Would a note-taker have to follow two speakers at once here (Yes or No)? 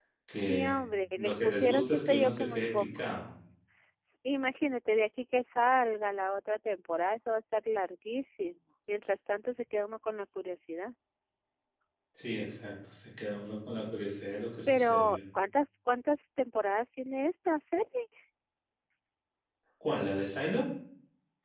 Yes